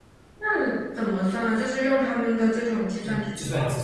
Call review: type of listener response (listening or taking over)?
taking over